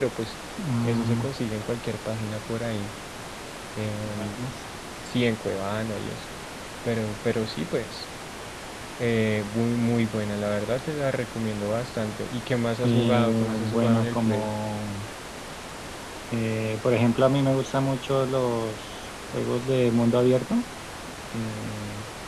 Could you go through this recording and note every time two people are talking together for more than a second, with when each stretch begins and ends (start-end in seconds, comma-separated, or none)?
12.8-14.5